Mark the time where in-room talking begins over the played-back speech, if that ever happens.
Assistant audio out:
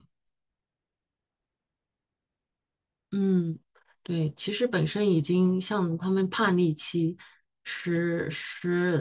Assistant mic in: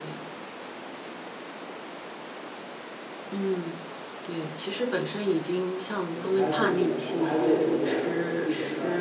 6.1 s

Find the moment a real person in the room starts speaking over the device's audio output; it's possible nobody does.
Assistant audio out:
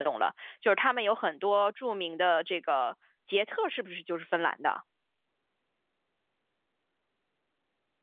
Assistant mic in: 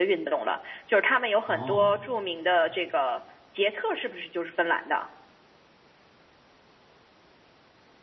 1.5 s

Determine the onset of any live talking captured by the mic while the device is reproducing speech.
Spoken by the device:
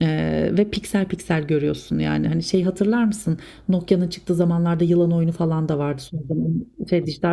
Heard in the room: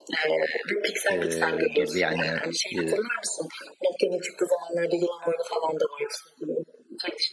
1.1 s

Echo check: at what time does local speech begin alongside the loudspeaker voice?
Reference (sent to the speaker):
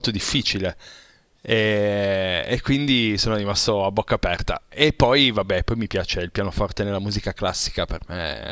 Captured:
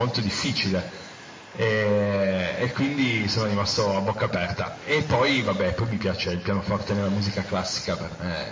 none

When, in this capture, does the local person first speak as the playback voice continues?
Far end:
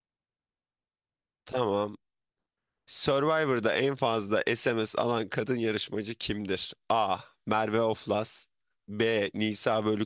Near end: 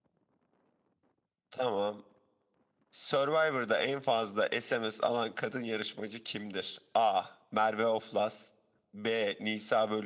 none

